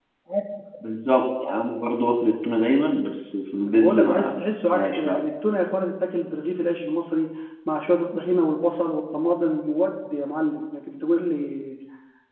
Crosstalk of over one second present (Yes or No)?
Yes